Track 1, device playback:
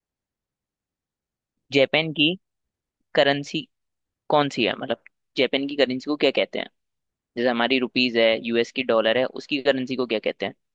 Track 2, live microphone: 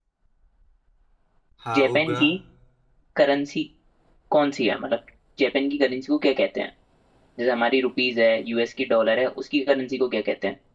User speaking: Yes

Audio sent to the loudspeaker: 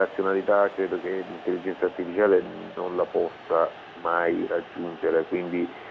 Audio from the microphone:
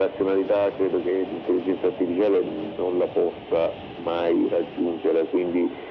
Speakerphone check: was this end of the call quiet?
Yes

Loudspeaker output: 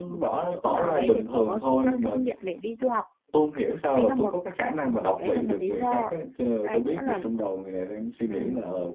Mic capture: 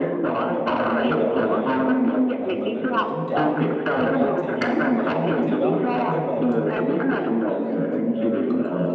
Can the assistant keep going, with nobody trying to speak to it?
No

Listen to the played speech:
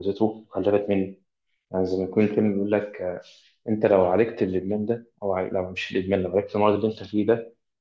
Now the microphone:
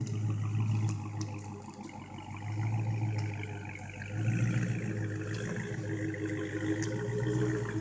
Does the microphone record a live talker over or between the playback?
No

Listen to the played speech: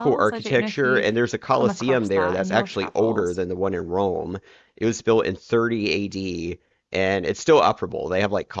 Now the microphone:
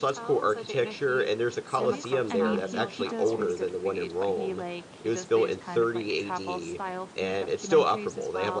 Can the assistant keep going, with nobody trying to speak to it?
No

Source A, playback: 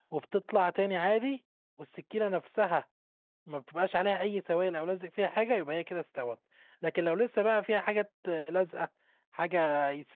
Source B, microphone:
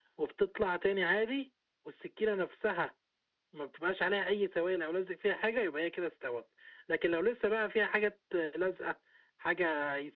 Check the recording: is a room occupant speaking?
No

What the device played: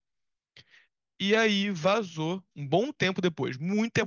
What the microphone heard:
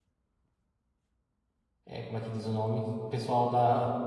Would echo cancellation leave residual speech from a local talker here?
Yes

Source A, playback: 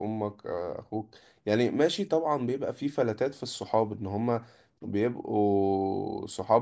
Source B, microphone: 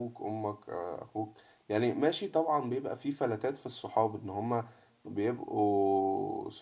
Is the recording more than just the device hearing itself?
No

